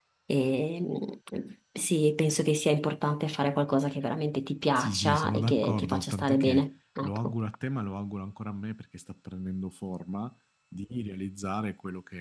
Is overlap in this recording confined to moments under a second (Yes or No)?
No